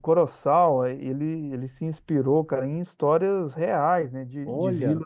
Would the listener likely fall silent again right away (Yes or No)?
Yes